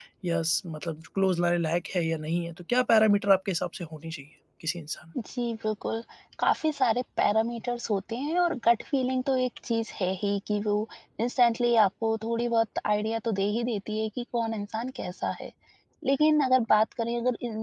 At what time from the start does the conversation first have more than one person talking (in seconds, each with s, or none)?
none